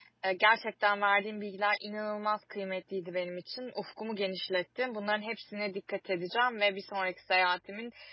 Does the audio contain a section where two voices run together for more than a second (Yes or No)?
No